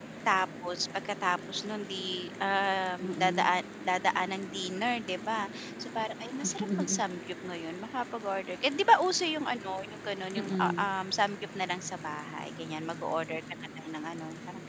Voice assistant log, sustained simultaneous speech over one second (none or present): none